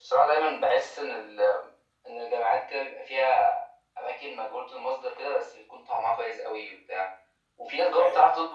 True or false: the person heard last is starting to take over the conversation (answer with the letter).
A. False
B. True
A